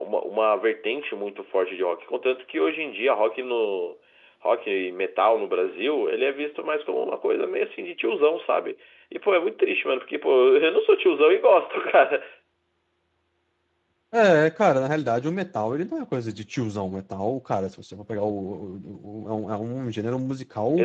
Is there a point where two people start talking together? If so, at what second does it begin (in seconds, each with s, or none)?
none